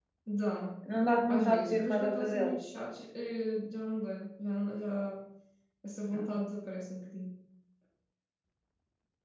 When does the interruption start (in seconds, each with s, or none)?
1.3 s